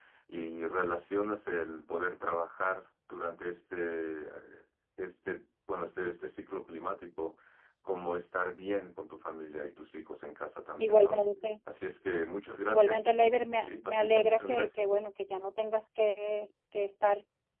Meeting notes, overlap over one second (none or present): present